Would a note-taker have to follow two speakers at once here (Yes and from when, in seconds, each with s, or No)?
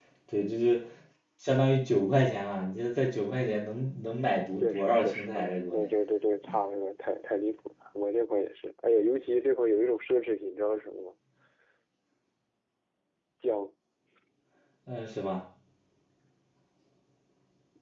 Yes, from 4.6 s